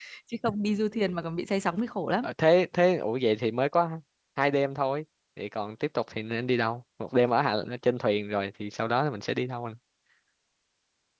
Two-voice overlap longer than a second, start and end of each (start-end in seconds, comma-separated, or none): none